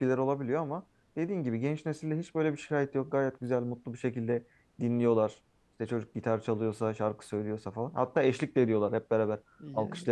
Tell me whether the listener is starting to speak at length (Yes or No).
No